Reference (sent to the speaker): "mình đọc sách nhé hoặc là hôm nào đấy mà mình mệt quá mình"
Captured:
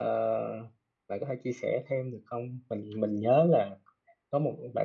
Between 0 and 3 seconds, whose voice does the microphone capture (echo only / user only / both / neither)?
user only